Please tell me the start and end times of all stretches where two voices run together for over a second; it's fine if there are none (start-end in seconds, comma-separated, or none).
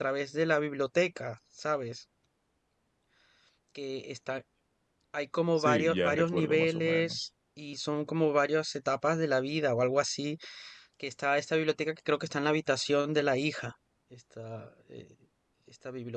5.6-7.2